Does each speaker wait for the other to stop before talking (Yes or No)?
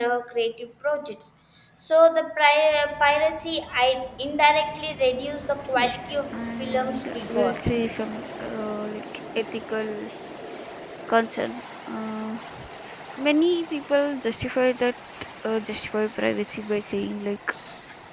No